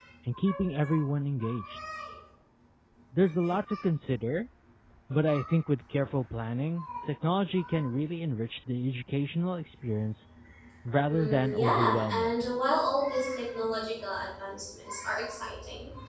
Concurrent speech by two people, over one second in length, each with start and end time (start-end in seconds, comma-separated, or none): 11.1-12.3